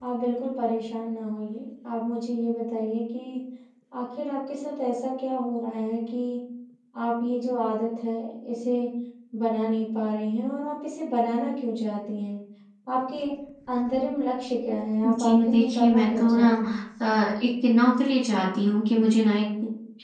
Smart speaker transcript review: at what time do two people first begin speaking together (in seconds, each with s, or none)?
15.0 s